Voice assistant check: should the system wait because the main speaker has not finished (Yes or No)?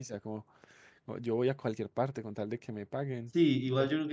No